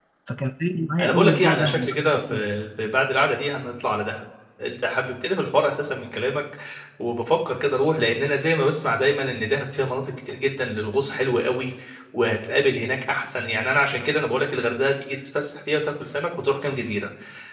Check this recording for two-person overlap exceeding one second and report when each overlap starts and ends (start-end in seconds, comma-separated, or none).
1.0-2.4